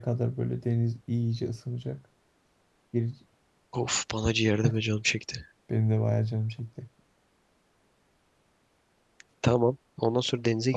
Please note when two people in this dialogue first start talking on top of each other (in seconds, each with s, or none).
none